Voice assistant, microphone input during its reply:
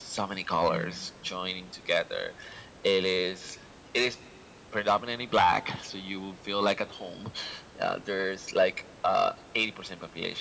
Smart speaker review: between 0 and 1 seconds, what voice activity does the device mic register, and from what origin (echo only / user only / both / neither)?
both